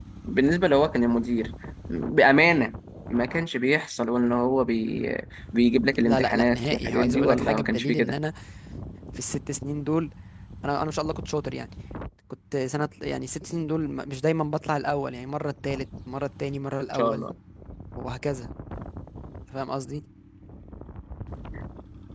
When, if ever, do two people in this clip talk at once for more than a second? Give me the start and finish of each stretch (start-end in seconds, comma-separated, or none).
6.0-8.2